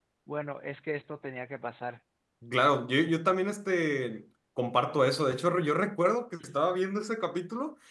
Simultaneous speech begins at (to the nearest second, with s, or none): none